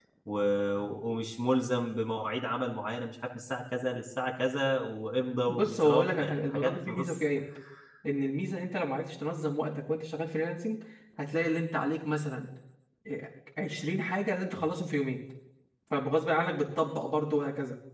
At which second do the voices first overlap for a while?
5.5 s

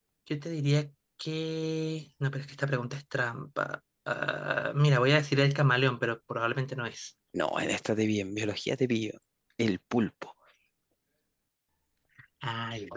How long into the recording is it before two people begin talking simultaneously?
none

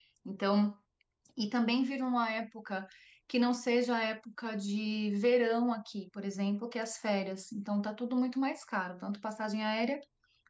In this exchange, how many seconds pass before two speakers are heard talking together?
none

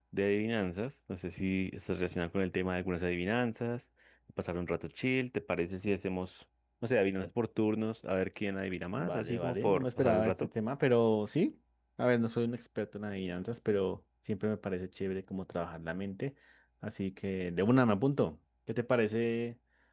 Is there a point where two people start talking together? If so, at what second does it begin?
8.9 s

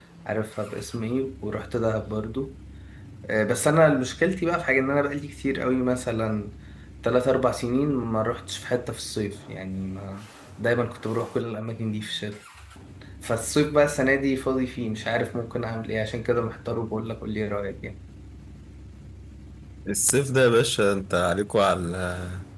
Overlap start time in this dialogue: none

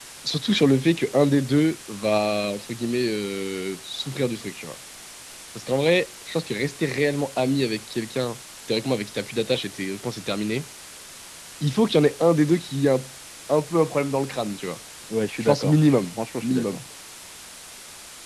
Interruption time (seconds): 15.4 s

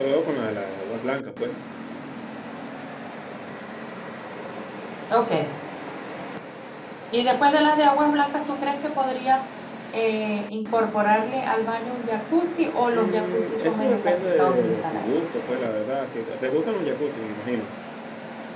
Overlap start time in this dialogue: 12.9 s

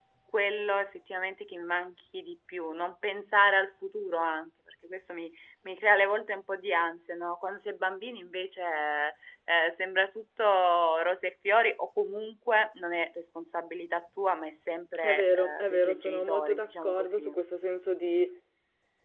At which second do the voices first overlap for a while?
15.0 s

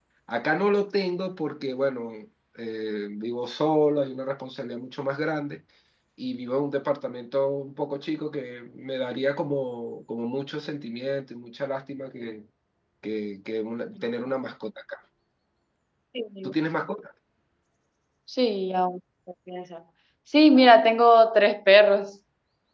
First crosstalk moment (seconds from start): none

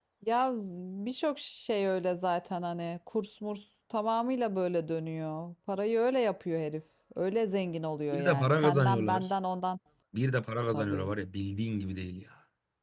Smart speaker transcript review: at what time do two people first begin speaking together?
8.1 s

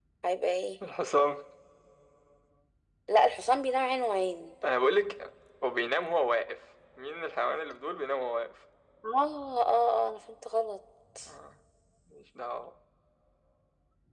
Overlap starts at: none

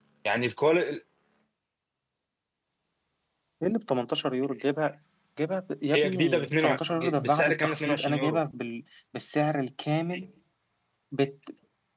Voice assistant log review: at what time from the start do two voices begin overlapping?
5.9 s

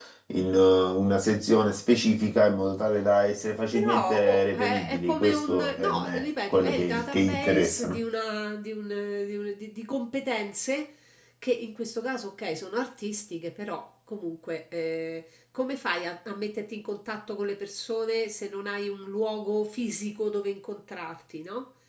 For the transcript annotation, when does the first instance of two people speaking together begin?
3.7 s

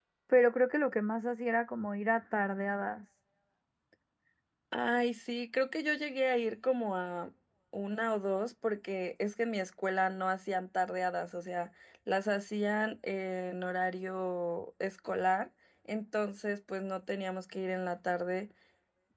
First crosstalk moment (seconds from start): none

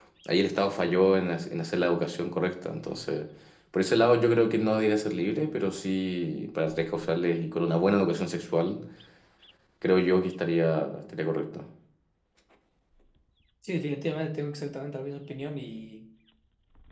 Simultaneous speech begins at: none

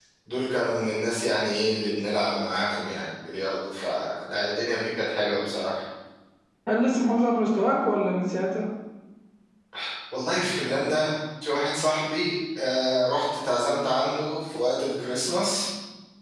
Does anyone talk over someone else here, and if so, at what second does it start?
none

